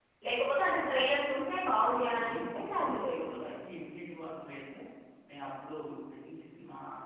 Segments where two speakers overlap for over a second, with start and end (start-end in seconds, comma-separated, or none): 2.0-3.5